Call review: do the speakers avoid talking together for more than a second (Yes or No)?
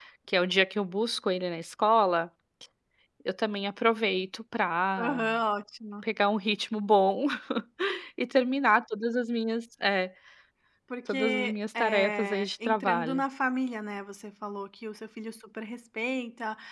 No